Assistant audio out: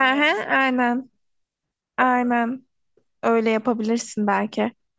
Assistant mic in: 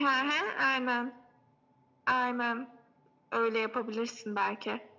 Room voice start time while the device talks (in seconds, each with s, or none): none